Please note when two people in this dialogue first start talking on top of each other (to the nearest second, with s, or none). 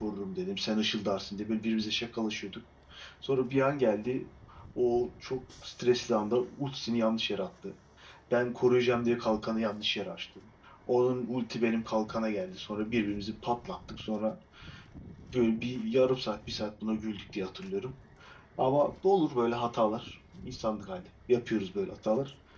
none